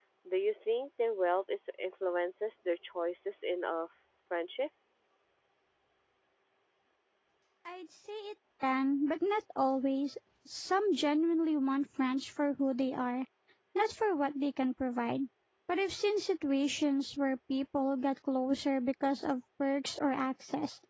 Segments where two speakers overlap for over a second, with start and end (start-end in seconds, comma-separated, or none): none